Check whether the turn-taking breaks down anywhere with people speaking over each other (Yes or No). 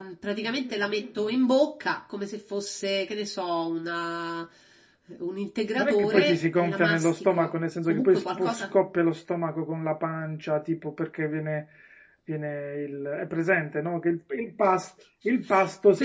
Yes